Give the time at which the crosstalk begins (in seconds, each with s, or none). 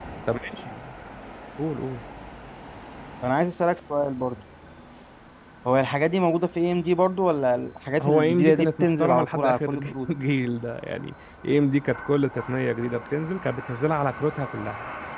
8.0 s